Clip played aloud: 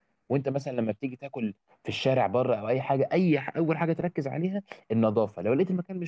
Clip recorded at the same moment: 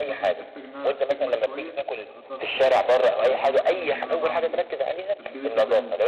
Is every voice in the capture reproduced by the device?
No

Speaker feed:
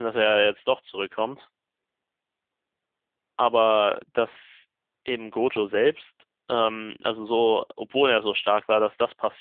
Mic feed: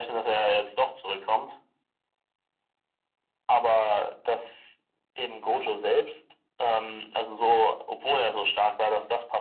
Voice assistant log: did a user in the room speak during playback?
No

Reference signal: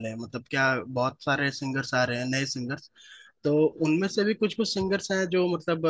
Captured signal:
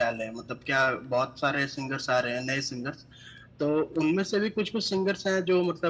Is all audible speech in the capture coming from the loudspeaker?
Yes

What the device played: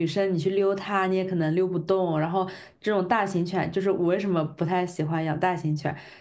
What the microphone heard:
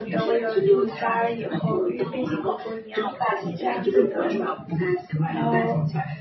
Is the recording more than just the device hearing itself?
Yes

